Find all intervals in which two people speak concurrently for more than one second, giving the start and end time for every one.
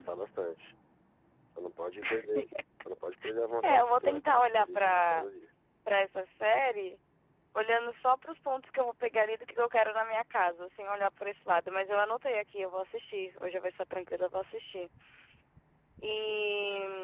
3.6-5.2

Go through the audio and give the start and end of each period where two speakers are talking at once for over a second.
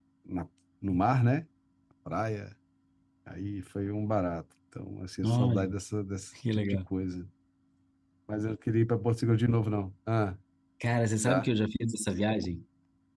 none

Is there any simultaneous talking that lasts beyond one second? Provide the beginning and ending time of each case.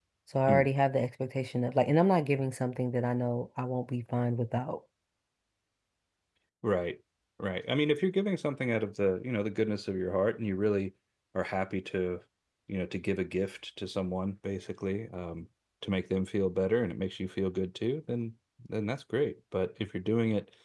none

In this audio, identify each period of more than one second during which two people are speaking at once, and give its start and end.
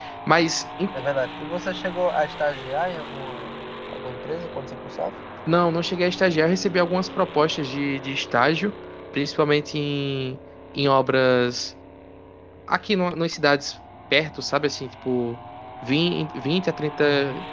none

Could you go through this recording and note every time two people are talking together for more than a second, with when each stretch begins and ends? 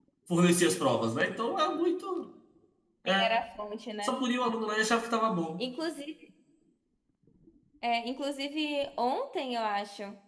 none

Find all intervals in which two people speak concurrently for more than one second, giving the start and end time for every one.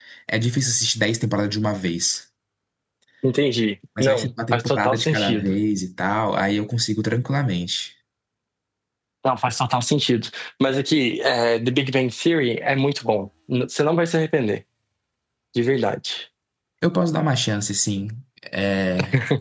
4.0-5.5

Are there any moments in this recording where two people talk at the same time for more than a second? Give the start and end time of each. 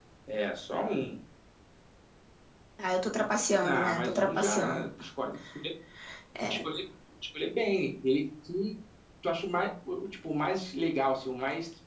3.6-4.8

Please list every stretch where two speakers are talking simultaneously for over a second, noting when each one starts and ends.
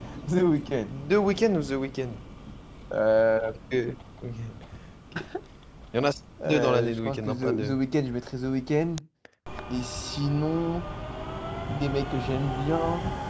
6.5-7.8

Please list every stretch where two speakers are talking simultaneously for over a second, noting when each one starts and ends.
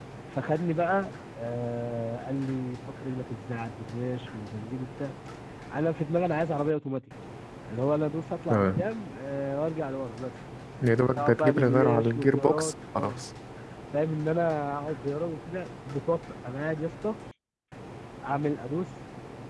11.2-13.2

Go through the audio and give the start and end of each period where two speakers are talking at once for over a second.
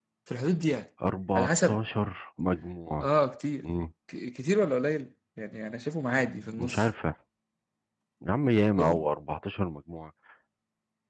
none

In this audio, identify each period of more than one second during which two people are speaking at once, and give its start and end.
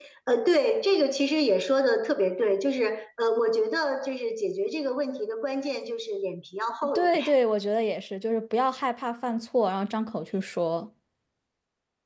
none

